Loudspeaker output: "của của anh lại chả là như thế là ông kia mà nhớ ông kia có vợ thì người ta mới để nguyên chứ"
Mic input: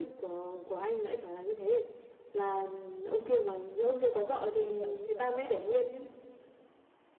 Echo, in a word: present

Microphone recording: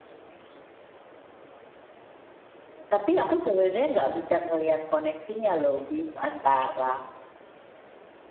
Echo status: none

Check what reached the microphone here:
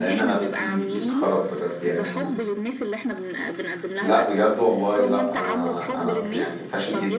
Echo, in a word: present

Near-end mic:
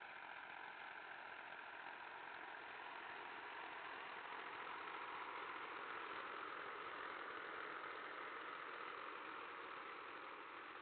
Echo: none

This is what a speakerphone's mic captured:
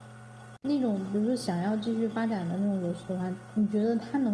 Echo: none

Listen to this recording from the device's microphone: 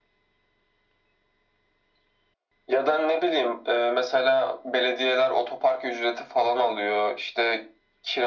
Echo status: present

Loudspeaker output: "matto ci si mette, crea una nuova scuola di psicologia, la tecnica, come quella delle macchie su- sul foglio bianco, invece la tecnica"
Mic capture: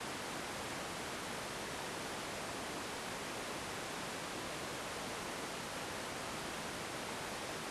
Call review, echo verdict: none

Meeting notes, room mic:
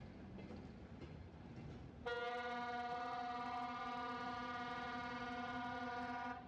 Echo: none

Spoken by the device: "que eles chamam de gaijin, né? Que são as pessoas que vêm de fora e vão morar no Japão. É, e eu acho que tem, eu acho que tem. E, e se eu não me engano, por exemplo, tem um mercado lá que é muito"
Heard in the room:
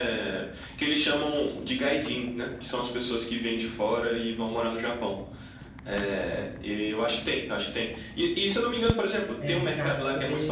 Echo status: present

